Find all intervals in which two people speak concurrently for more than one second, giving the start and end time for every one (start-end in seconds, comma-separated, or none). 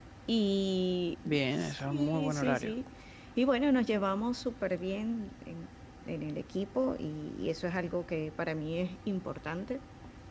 1.2-2.7